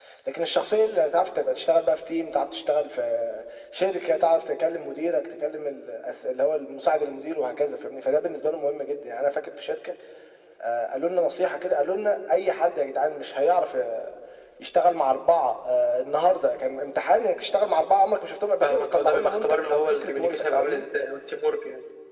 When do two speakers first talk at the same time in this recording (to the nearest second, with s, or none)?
19 s